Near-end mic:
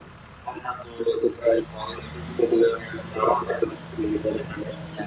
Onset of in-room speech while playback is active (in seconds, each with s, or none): none